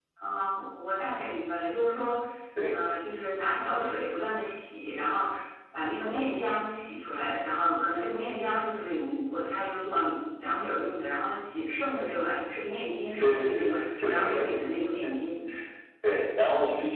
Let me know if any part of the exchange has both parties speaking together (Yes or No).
Yes